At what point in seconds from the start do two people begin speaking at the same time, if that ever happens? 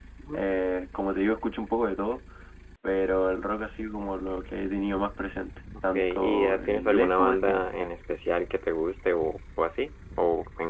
5.9 s

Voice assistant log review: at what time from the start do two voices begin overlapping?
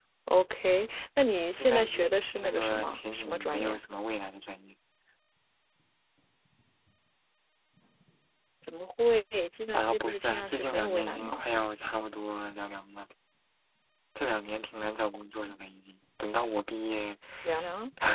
1.6 s

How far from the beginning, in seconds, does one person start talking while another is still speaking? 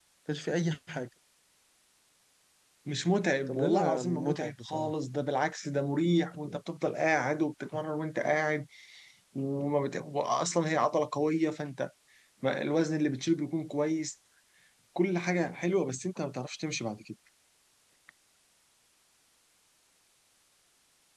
3.5 s

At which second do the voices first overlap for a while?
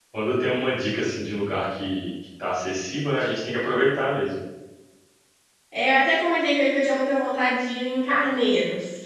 none

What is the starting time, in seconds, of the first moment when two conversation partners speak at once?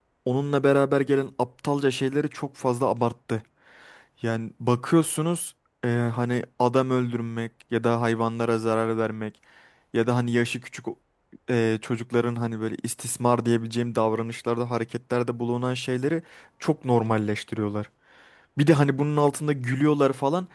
none

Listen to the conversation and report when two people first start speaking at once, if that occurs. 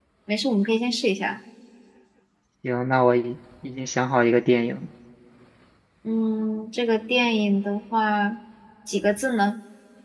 none

